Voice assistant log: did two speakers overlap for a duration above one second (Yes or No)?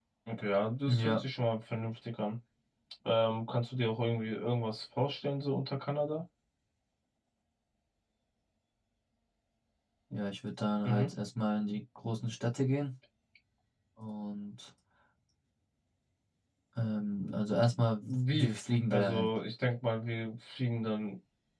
No